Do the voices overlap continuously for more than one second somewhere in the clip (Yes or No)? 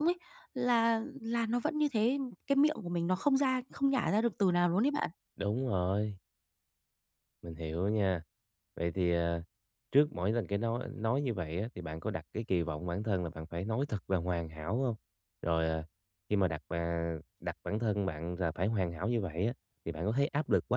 No